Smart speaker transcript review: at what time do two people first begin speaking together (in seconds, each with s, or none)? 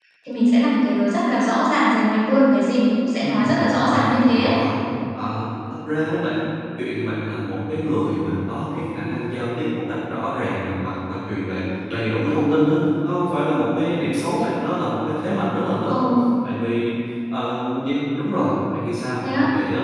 3.2 s